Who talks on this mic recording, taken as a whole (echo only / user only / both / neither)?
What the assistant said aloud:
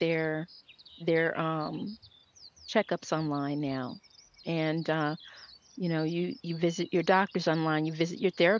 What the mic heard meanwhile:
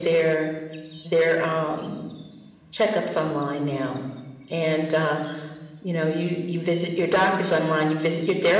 echo only